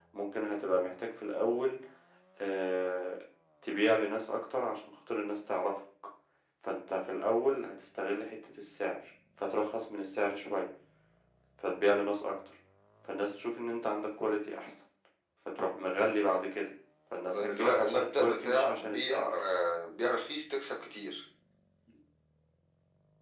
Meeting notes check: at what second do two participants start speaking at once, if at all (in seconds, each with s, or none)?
17.3 s